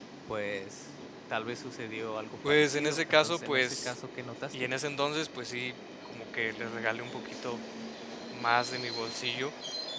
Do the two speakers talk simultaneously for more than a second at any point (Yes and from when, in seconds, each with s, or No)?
Yes, from 2.4 s